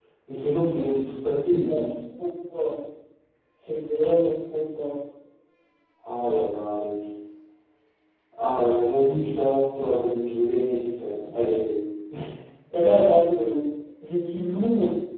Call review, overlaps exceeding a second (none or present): none